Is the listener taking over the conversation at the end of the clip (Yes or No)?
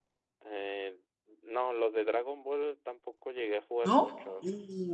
Yes